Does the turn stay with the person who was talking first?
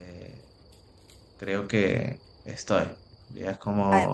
Yes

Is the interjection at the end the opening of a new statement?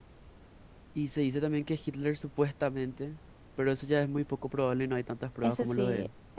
Yes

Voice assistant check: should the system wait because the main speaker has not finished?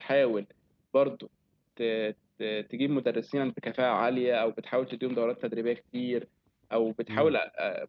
Yes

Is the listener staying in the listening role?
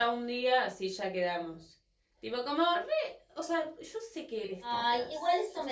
No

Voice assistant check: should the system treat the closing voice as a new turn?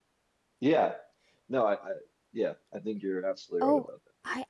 Yes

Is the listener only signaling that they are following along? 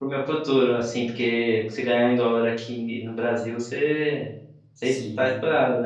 No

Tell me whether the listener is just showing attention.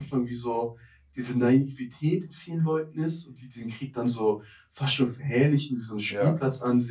Yes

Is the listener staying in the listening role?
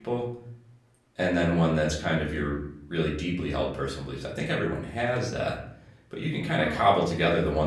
Yes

